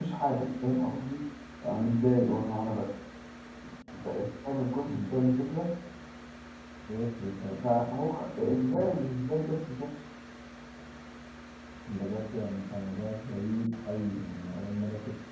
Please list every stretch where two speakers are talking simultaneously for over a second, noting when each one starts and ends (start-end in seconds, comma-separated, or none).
none